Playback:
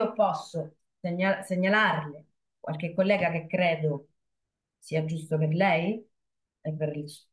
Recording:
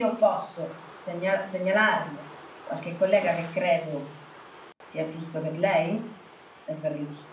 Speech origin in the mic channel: echo only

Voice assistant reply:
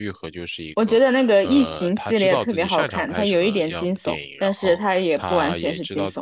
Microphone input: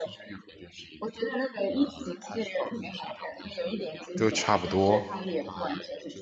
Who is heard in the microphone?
both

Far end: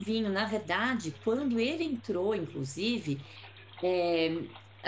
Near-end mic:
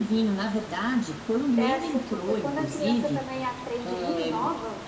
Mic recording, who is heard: both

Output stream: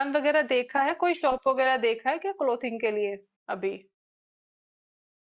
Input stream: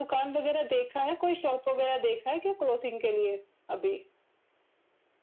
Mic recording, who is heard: echo only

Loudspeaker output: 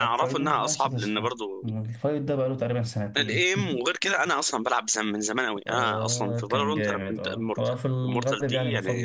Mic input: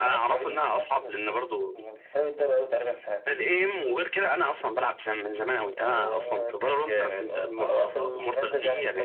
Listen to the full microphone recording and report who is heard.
both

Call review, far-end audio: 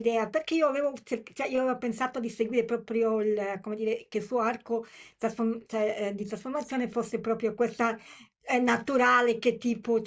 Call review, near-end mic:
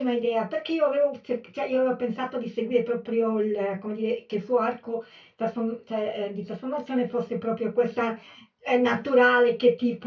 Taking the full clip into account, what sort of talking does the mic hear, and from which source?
echo only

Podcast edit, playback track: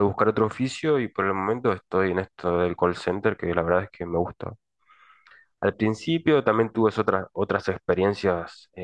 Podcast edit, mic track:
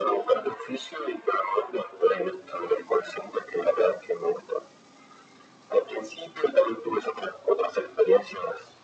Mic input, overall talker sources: echo only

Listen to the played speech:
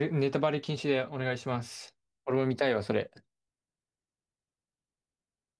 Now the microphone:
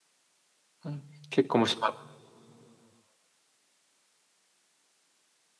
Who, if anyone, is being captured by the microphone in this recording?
user only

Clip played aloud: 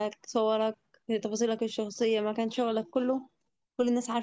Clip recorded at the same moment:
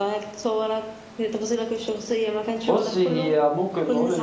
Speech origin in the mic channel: both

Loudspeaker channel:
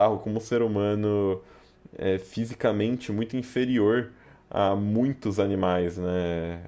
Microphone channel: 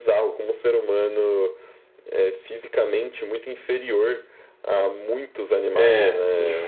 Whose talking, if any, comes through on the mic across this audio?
both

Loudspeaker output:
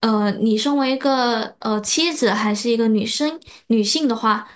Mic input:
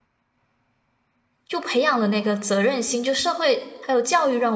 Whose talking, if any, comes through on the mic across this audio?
user only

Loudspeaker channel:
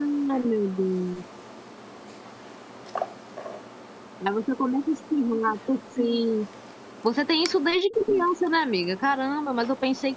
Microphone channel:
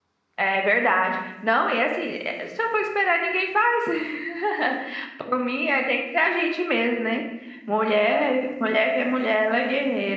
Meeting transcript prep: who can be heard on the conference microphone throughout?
user only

